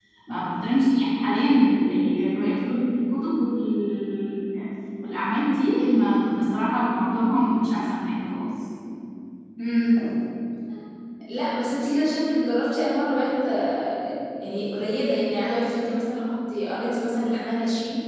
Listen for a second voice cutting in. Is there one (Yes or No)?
No